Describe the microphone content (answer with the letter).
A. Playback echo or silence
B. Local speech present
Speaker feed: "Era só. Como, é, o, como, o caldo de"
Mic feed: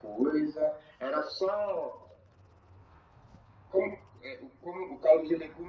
A